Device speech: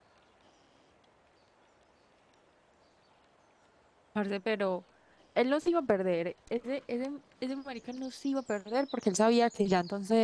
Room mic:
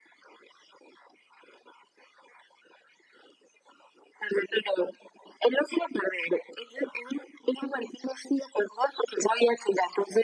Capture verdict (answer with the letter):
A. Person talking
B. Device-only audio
B